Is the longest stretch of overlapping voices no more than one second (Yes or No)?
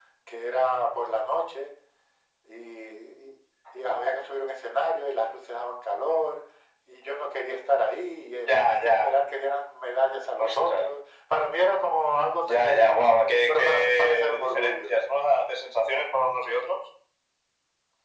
No